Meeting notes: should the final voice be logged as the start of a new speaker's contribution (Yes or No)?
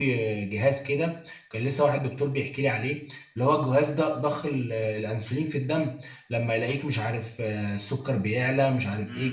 Yes